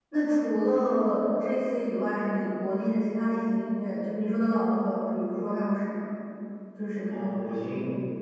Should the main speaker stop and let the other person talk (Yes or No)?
Yes